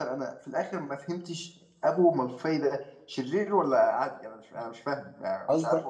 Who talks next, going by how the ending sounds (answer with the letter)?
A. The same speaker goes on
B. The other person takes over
B